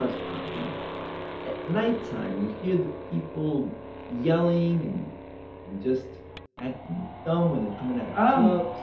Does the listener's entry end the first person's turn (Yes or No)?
Yes